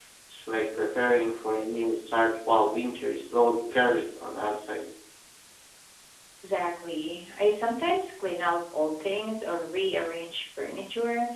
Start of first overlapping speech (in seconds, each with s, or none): none